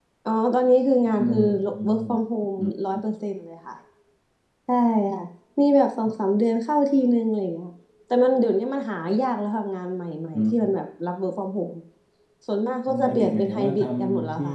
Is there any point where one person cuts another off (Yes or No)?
Yes